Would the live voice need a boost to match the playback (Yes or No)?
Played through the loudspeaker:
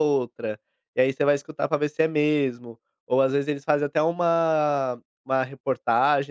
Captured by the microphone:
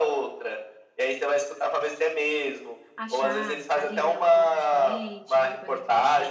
Yes